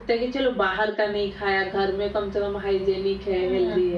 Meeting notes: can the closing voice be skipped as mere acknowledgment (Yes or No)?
No